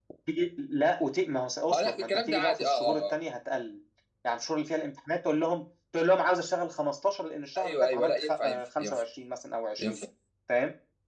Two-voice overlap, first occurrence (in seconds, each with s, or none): 1.7 s